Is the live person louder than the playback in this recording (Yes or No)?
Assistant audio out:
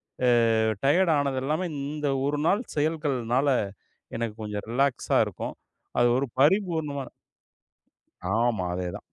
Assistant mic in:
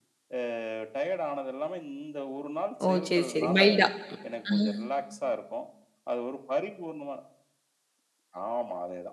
Yes